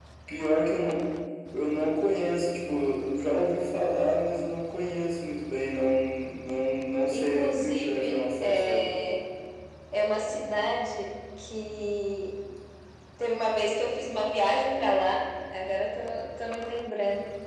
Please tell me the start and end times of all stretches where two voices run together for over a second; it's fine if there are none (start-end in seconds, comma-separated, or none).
7.1-8.9